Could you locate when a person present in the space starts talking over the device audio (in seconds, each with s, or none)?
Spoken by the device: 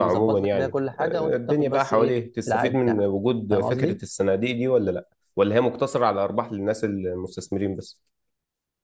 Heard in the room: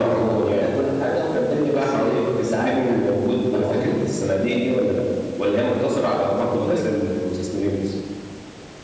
5.5 s